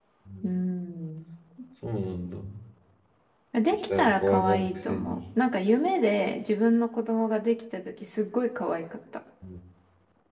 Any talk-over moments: Yes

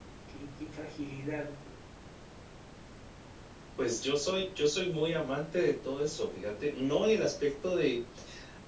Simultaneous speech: No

